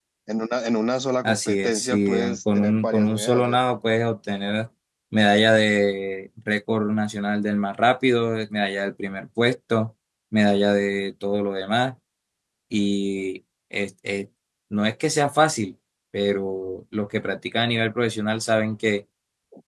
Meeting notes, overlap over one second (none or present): present